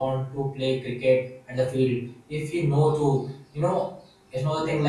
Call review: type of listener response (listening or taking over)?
listening